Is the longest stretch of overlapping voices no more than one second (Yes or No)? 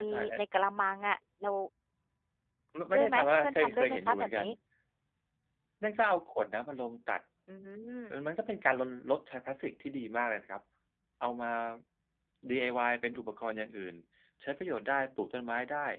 No